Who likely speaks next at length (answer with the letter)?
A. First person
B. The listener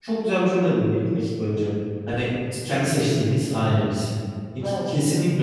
A